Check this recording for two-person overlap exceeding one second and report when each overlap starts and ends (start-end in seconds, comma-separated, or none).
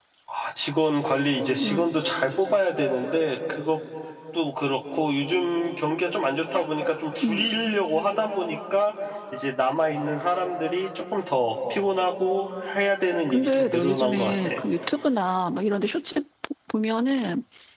13.3-14.5